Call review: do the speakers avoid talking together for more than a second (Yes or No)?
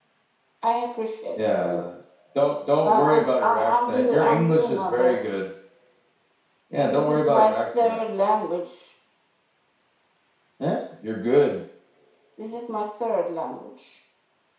No